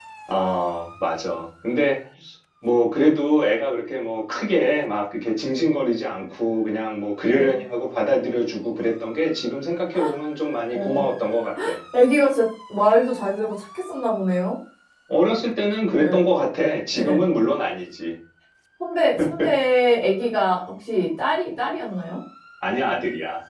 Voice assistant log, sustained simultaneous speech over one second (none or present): none